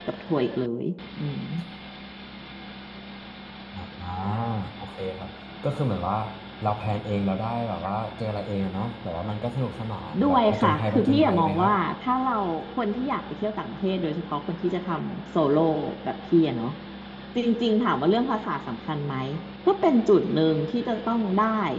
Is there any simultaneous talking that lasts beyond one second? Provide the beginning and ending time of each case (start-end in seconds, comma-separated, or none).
10.2-11.7